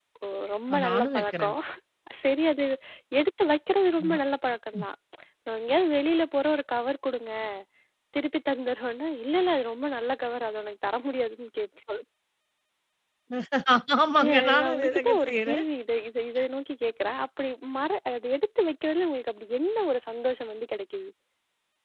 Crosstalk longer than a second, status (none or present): present